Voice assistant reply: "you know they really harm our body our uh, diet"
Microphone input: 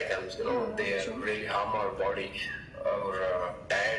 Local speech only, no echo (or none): Yeah, that's true.